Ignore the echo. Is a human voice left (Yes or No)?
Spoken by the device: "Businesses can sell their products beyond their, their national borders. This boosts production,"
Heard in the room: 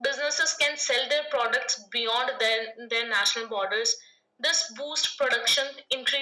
No